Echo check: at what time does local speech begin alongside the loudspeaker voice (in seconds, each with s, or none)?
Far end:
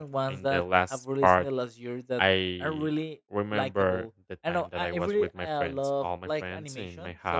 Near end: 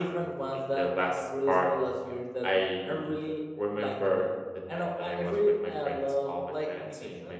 none